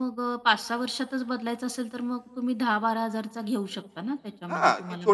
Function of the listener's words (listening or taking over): taking over